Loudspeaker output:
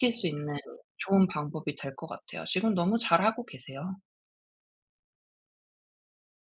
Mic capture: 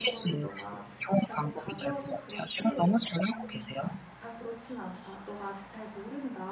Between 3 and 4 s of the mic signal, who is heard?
both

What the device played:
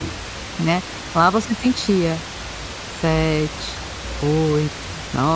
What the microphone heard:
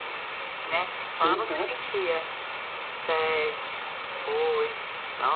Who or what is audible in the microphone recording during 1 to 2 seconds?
both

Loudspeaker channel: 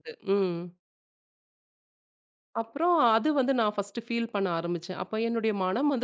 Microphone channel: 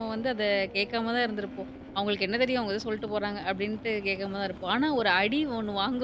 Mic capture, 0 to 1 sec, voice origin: user only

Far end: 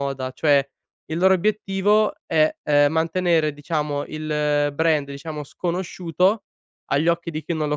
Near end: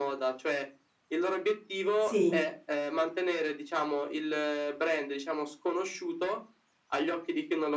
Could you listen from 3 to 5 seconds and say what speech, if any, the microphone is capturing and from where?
echo only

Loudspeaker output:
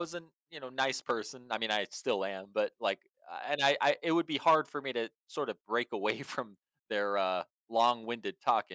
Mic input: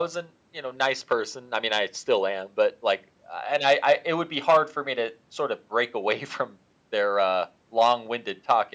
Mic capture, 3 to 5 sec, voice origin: echo only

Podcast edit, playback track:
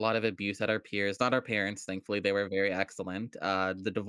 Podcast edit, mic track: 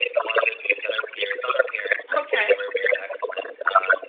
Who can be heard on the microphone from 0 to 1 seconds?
echo only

